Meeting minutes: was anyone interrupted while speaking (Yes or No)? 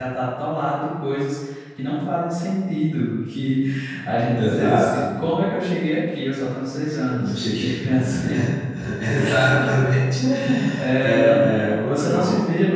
Yes